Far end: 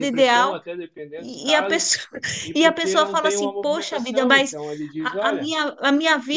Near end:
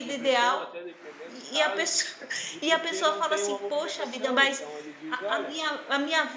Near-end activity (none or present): none